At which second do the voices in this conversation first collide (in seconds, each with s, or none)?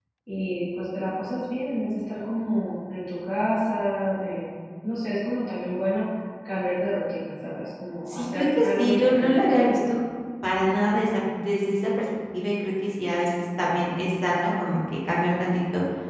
8.1 s